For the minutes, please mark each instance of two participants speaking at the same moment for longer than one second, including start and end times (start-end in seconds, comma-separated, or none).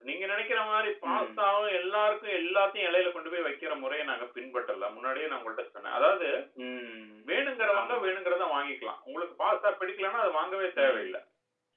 none